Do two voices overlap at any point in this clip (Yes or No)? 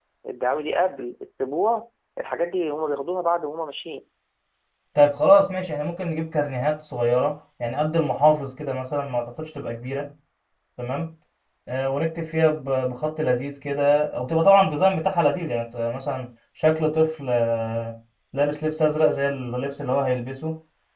No